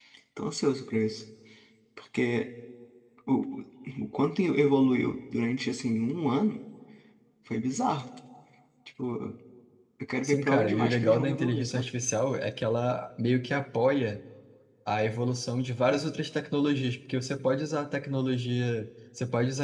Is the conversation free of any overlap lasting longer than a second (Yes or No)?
No